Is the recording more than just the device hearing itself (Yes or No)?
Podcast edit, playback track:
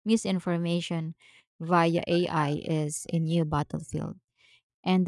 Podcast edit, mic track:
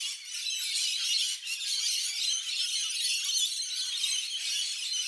No